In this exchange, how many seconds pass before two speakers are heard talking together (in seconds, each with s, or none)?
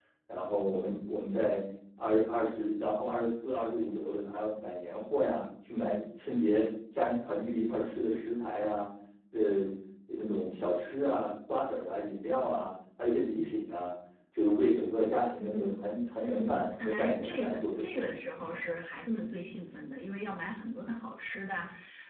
16.3 s